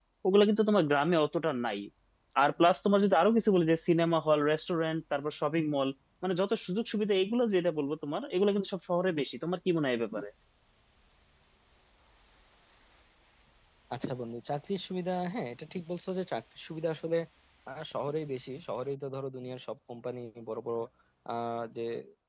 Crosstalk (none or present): none